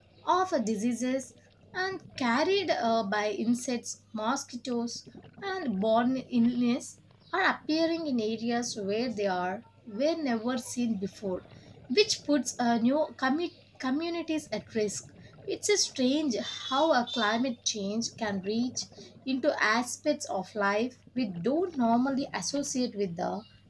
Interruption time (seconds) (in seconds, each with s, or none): none